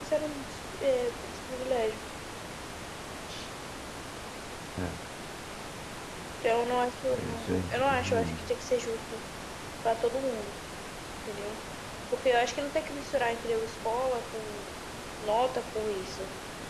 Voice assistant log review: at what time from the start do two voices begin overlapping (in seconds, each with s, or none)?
7.2 s